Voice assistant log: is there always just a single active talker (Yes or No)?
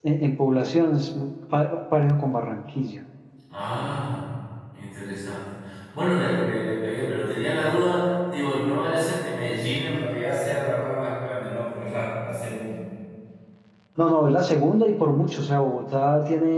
Yes